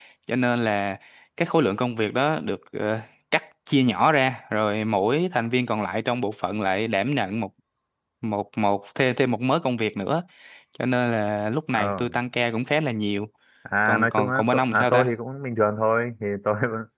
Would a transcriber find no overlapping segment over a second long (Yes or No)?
No